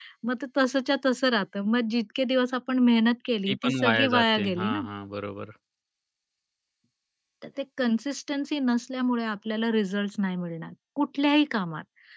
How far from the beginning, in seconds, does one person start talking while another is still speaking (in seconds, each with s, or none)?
3.5 s